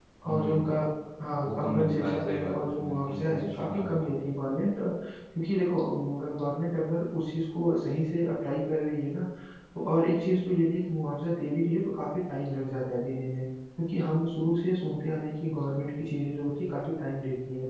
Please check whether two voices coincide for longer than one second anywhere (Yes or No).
Yes